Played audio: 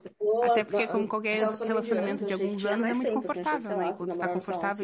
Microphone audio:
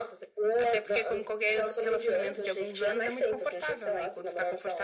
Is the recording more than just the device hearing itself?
No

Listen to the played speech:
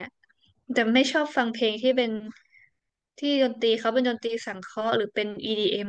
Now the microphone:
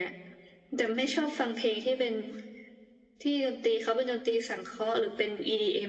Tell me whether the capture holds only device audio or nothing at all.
Yes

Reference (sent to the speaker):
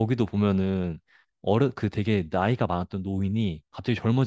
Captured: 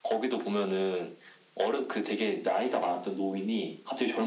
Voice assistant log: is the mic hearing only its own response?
Yes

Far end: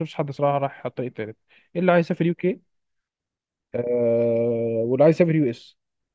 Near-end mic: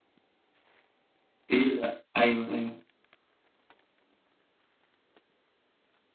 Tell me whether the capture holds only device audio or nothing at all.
No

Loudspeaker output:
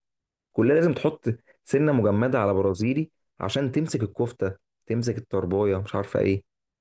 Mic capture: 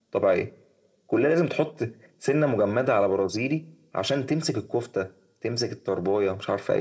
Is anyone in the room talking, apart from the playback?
No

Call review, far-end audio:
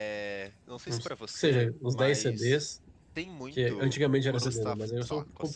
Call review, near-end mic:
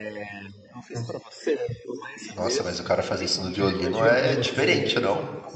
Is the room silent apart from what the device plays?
No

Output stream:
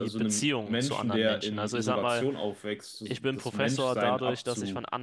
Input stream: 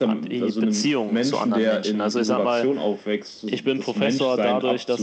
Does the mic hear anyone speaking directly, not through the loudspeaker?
No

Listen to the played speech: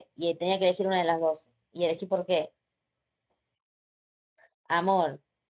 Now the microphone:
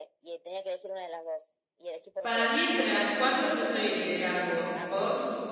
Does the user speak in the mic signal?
Yes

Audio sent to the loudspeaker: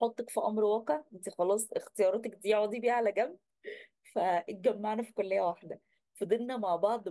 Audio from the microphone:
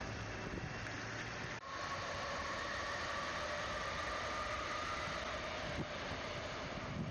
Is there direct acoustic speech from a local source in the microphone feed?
No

